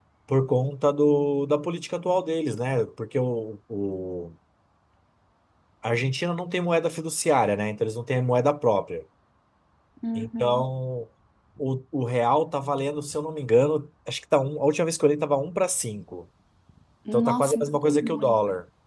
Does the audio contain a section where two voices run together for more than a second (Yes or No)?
Yes